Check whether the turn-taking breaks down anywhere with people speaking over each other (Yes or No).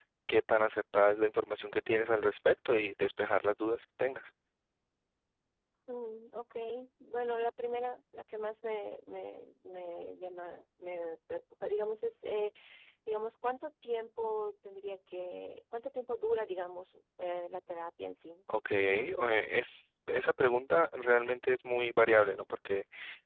No